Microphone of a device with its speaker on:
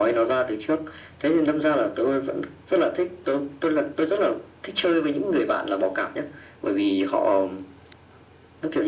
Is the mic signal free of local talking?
Yes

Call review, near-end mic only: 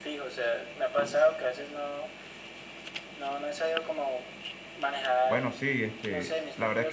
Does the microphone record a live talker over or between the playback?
Yes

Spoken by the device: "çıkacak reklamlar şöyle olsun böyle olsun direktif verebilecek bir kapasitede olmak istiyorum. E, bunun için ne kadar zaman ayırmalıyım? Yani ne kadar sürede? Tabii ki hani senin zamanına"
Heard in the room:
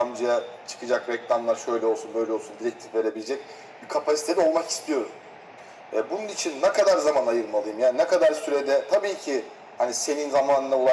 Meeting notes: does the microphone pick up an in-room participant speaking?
No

